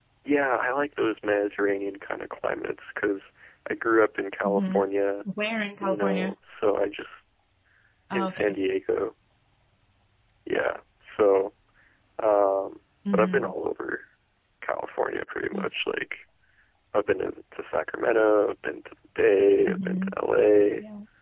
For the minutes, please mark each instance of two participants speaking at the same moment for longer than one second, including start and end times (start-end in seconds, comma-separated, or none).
none